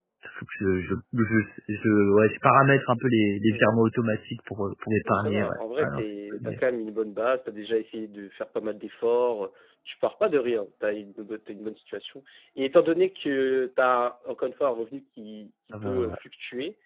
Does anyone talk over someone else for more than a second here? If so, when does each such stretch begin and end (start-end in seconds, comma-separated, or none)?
5.0-6.6